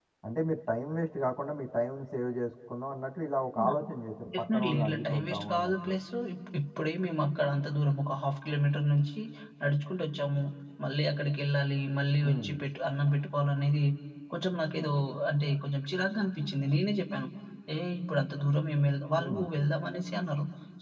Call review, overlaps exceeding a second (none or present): present